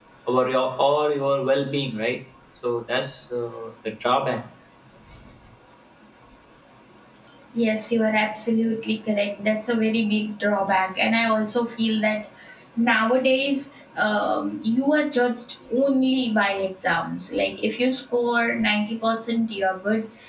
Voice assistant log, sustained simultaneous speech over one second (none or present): none